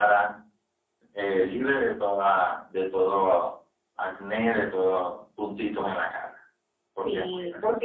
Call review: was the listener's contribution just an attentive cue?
No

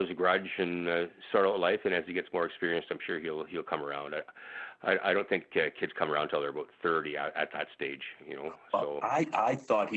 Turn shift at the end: Yes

